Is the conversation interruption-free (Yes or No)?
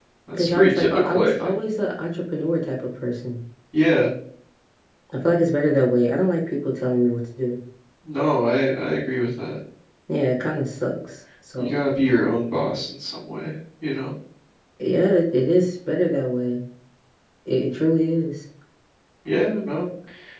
No